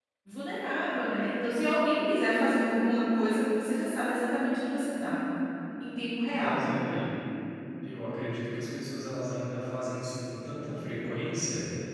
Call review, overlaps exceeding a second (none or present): none